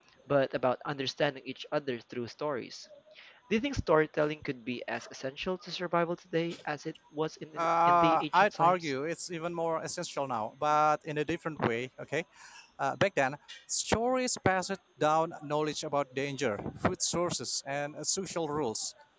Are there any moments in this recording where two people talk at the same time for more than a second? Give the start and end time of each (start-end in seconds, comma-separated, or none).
7.6-8.9